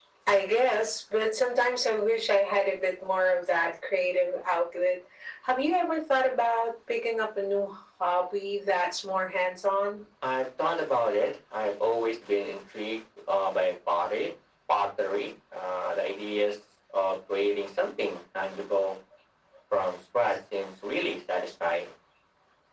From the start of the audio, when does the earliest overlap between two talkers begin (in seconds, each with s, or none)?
none